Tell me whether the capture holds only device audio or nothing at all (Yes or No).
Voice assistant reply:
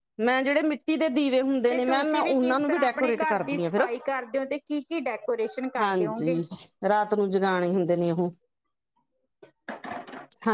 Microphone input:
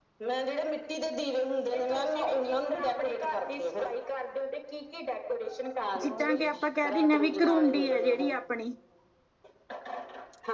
No